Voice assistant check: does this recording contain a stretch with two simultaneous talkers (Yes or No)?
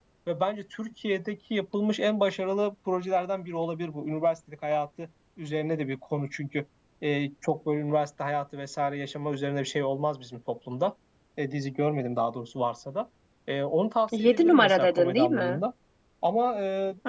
Yes